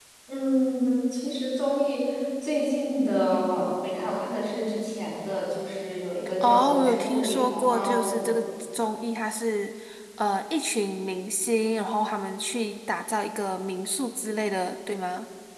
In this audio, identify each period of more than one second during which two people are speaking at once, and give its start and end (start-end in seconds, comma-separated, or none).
6.4-8.4